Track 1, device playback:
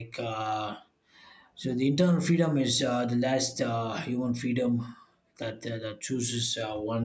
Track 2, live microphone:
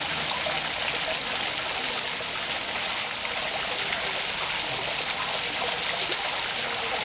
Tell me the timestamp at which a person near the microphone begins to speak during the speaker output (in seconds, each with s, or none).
none